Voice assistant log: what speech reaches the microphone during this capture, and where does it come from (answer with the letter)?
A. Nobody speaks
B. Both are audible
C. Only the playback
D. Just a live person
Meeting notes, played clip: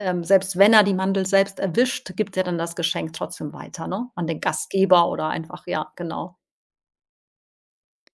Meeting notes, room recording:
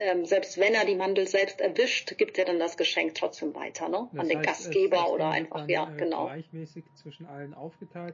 B